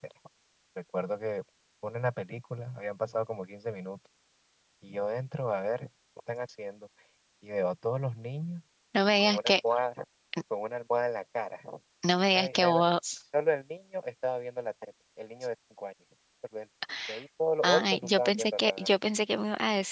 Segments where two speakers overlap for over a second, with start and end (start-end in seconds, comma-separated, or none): 17.6-18.9